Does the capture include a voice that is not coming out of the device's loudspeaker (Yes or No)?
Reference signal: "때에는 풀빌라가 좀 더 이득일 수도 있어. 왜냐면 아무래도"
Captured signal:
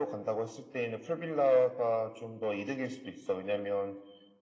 No